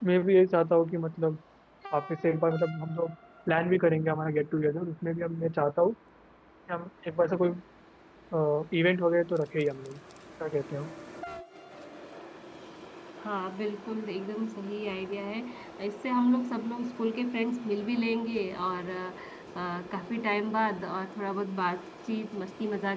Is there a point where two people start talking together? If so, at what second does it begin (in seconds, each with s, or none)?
none